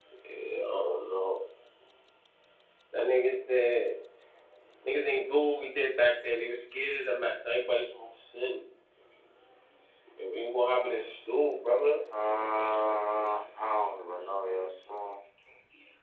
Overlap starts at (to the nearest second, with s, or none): none